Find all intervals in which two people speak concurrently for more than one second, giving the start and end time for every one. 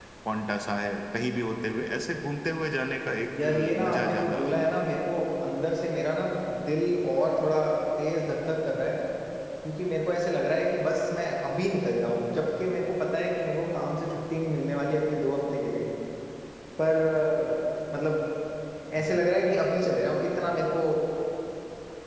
3.4-4.7

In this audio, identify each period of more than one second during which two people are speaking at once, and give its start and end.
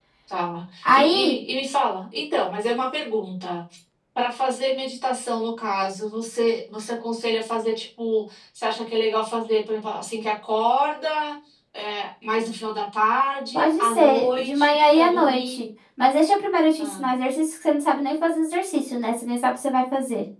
13.5-15.6

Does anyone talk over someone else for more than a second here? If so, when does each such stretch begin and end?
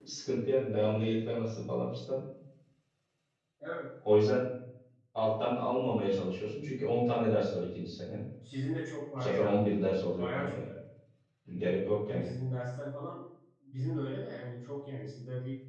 none

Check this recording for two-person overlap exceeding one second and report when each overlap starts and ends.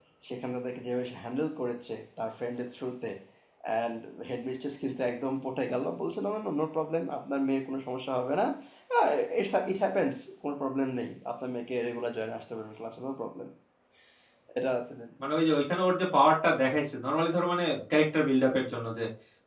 none

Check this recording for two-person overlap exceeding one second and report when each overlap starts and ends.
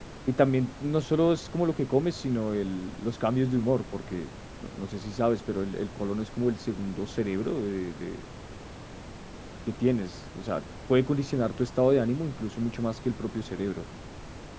none

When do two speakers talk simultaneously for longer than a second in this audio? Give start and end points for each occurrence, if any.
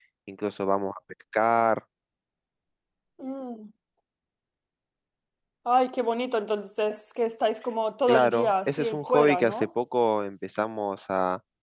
8.1-9.7

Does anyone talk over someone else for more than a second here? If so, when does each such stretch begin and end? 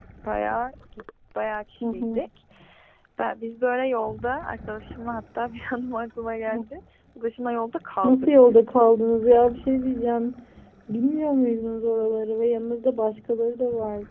none

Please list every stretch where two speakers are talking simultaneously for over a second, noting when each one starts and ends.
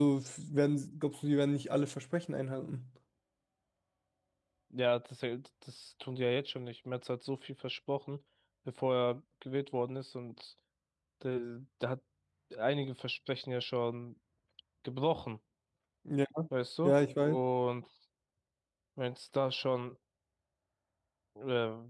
none

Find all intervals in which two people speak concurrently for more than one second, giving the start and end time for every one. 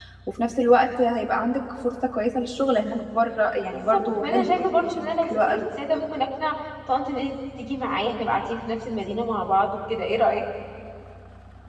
3.7-5.6

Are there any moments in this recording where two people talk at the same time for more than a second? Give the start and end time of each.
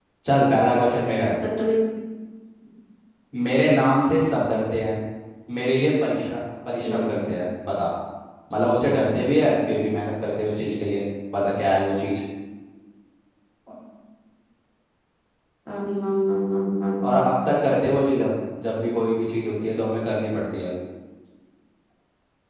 none

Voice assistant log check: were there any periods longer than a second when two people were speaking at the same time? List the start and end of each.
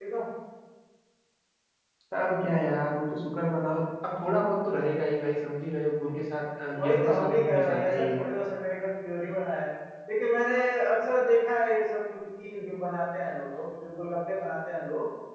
6.7-8.3

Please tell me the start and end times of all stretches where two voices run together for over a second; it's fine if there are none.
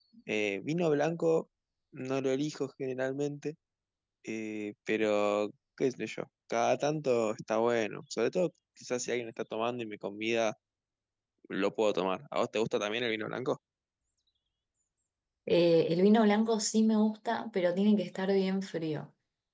none

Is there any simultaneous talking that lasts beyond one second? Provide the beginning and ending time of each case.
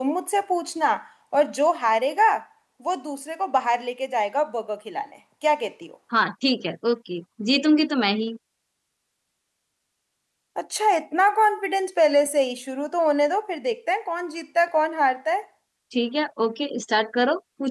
none

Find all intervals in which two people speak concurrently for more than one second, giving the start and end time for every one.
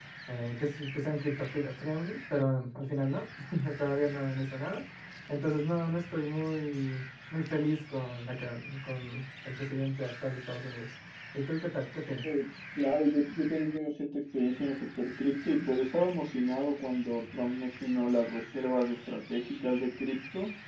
none

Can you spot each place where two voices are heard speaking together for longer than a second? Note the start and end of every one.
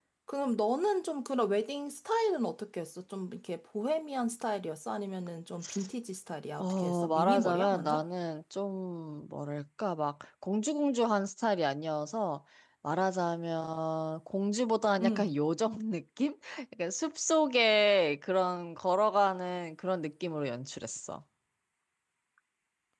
6.6-8.0

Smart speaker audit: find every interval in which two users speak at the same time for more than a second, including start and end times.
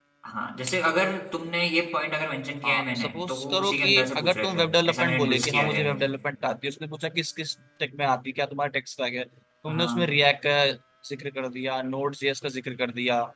2.6-5.8

